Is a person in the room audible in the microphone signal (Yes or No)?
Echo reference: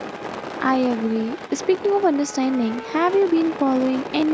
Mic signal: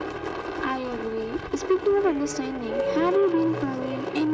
Yes